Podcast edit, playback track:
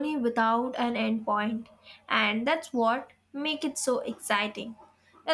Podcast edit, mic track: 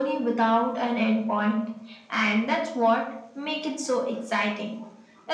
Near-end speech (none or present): none